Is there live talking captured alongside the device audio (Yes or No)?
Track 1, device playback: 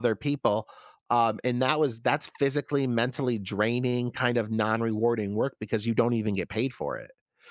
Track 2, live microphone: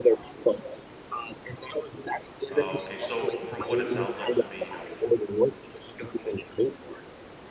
Yes